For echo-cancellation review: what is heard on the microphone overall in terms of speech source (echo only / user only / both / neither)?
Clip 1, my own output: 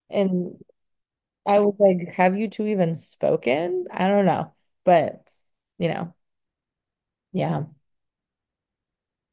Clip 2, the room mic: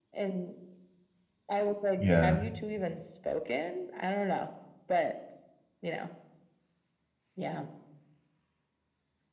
both